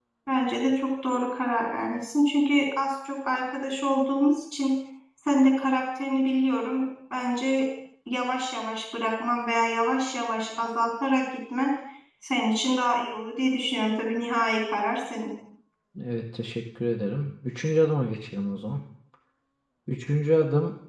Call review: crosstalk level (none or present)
none